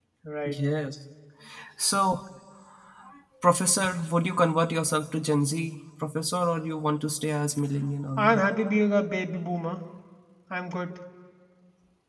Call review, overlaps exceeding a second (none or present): none